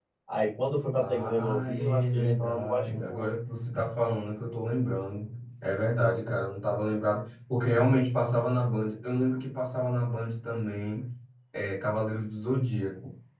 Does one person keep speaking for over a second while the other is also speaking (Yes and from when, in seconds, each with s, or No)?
Yes, from 1.0 s